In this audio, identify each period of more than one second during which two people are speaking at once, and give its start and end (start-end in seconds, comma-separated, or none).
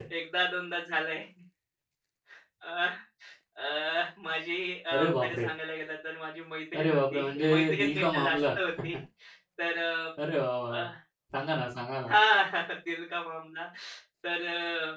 6.8-8.4